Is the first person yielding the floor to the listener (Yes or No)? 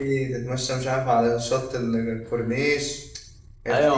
Yes